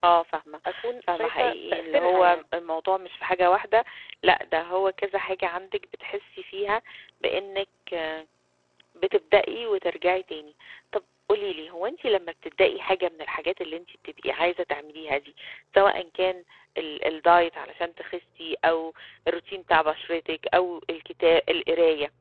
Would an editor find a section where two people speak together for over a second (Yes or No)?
Yes